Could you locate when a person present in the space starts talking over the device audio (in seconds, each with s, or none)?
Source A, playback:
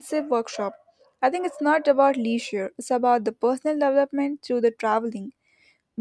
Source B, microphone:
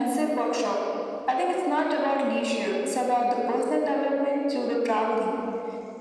none